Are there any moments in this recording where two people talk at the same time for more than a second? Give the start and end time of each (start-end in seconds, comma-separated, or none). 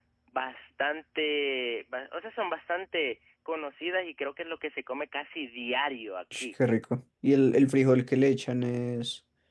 none